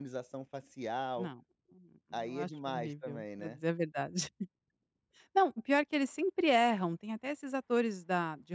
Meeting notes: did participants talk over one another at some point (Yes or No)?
Yes